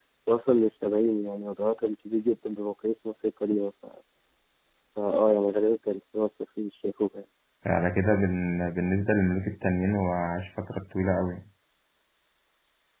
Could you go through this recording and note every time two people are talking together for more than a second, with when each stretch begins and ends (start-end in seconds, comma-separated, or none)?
none